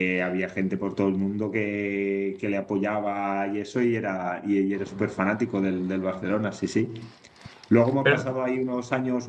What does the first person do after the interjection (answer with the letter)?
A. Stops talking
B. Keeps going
B